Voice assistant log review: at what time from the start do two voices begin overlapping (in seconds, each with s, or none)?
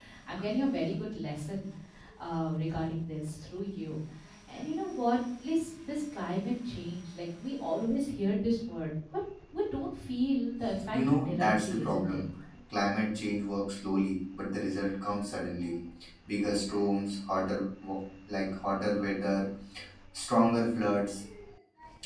10.9 s